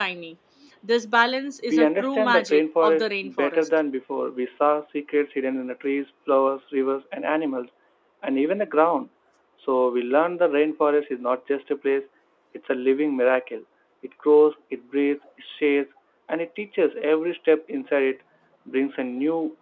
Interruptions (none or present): present